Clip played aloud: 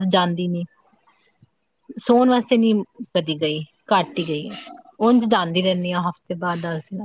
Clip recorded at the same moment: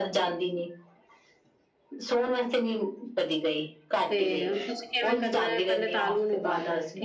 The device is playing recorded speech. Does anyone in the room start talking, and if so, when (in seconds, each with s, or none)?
4.1 s